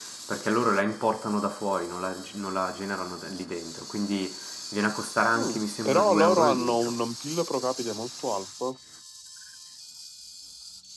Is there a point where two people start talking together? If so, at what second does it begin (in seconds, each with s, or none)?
5.4 s